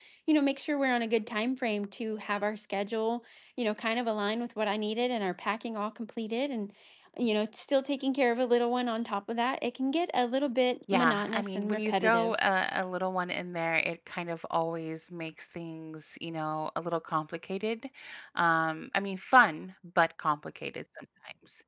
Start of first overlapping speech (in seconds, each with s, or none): 10.9 s